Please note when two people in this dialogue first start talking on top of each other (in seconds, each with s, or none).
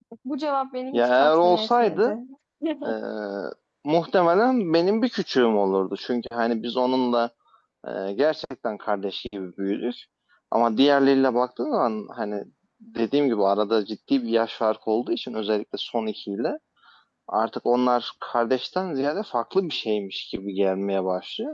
0.9 s